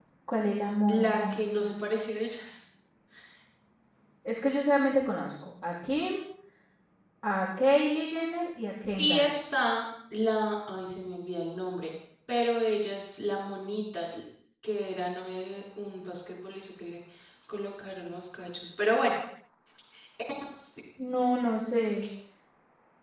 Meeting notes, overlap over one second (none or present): none